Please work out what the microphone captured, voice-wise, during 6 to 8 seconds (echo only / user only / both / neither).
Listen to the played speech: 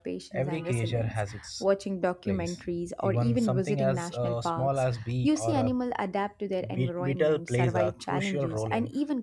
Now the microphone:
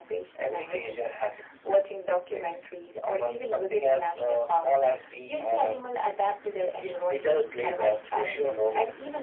echo only